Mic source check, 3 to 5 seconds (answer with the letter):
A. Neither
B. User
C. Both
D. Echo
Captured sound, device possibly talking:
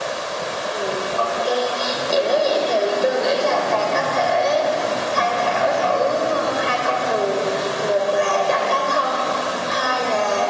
D